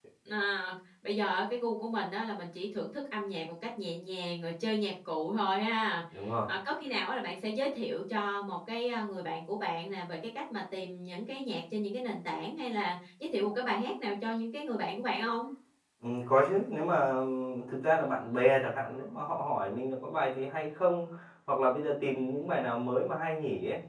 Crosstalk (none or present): none